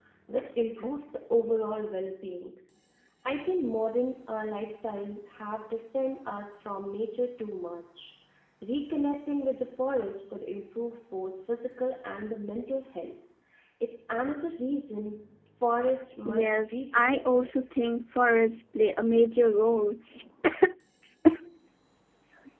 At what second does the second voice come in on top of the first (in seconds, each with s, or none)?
16.2 s